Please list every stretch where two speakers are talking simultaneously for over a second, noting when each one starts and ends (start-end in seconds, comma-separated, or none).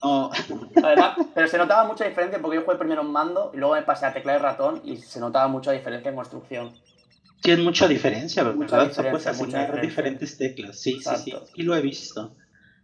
8.5-10.1